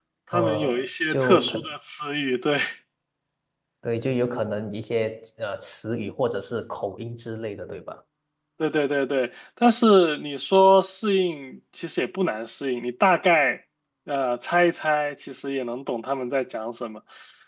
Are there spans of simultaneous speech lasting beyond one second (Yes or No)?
Yes